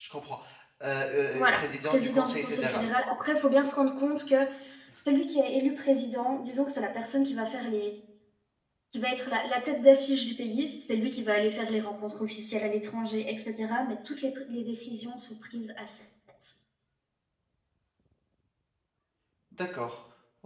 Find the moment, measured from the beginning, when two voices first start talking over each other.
1.3 s

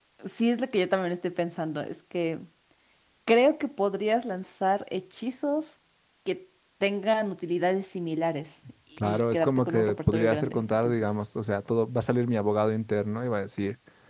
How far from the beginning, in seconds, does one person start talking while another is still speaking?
9.0 s

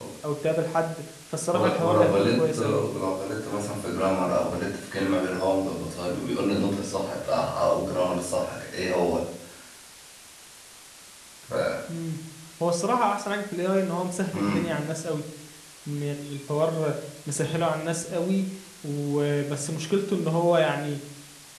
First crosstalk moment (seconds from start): 1.5 s

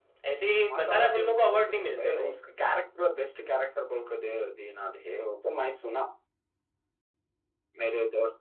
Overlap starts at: 0.7 s

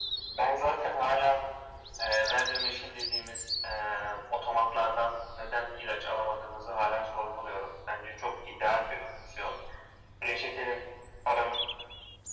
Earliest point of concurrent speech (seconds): none

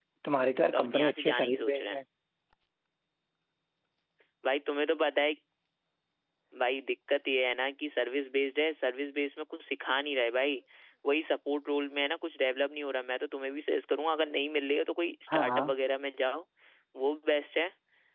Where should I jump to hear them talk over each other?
0.7 s

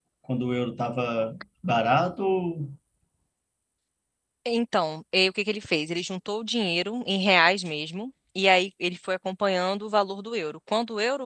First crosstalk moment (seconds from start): none

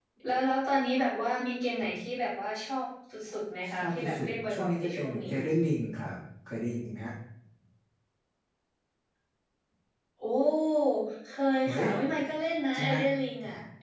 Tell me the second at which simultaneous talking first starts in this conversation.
3.7 s

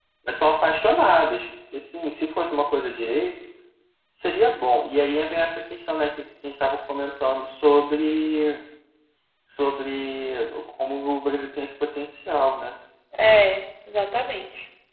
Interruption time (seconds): none

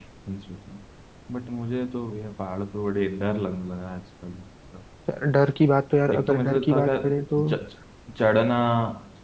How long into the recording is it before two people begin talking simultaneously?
6.1 s

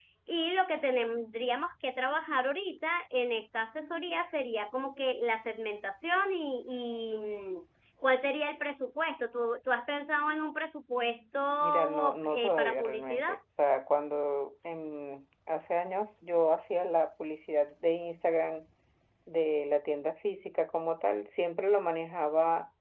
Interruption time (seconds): 11.6 s

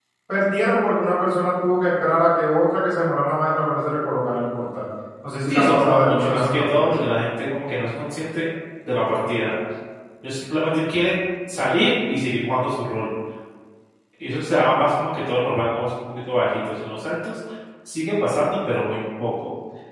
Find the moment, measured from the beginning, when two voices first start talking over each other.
5.5 s

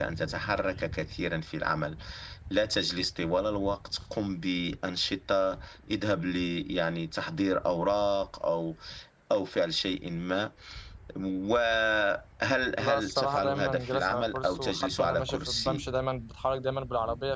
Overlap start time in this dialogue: 12.8 s

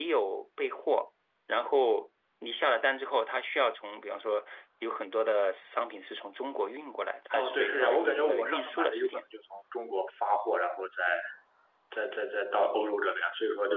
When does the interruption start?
7.3 s

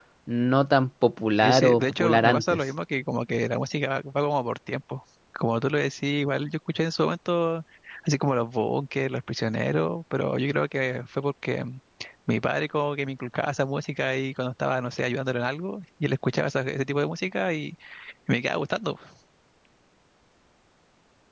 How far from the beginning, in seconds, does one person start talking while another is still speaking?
1.4 s

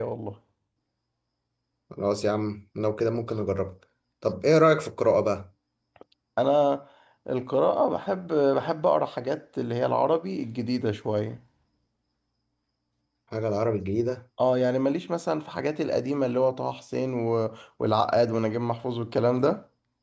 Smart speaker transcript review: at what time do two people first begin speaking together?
none

